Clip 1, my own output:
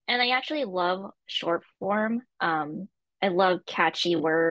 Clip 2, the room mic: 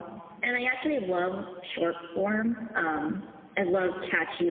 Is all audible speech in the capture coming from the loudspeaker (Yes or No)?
Yes